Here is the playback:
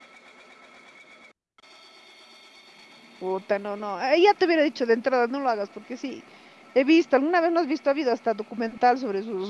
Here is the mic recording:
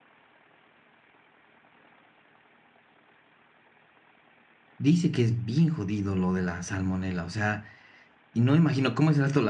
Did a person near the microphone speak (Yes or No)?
Yes